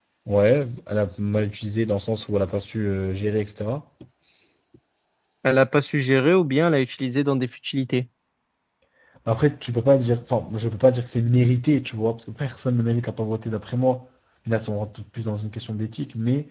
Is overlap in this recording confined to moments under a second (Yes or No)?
Yes